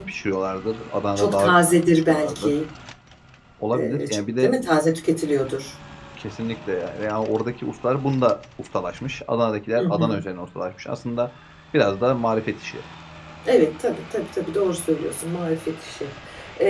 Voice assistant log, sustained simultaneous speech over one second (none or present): present